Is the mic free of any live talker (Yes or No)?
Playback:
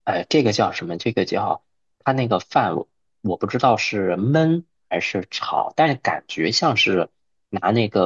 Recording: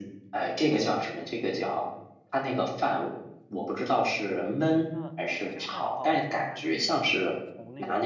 No